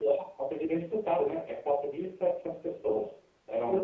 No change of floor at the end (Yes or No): Yes